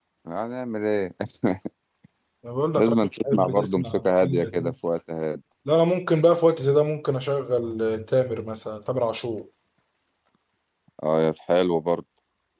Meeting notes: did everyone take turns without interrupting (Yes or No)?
No